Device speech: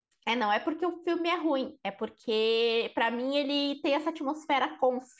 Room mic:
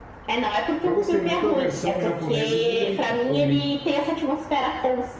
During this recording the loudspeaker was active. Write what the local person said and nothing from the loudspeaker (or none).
Eu gostei muito da versão japonesa do Grito, O Grito.